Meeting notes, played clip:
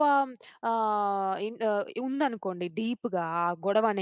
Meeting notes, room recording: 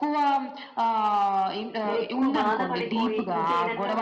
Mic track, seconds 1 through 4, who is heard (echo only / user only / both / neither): both